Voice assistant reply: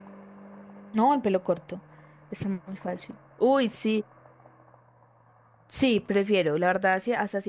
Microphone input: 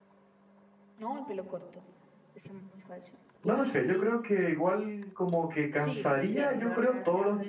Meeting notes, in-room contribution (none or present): present